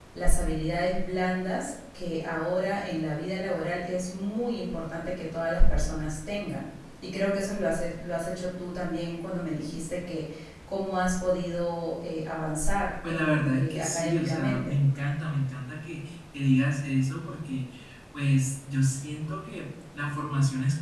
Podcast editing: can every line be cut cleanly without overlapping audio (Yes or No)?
No